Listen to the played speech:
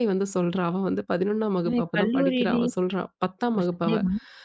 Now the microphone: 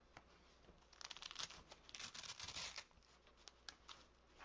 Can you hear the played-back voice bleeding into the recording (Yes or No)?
No